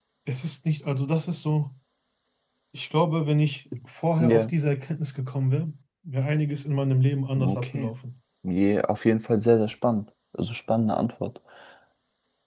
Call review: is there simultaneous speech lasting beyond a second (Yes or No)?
No